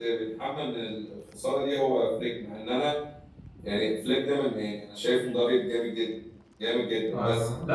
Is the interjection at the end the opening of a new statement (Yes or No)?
Yes